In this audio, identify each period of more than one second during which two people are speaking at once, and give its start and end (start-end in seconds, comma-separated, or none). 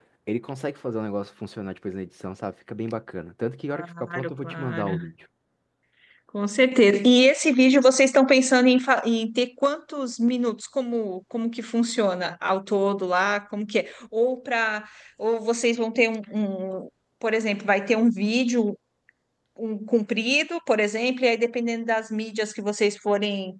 3.7-5.1